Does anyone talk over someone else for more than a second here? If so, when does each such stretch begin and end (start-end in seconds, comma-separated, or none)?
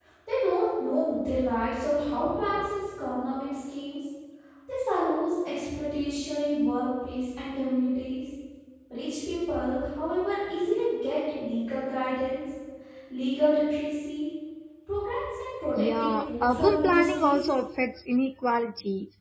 15.8-17.4